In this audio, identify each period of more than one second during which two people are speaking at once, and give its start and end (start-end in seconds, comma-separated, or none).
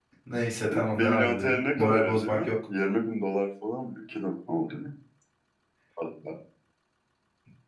0.7-2.5